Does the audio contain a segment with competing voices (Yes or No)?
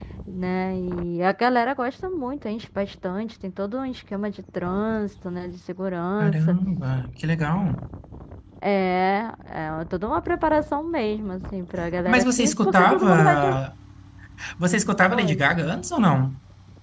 Yes